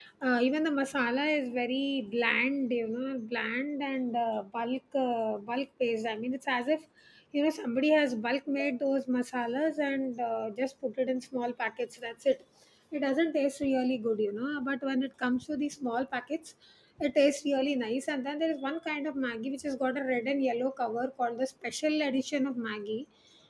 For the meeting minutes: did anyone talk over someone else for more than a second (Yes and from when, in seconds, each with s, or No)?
No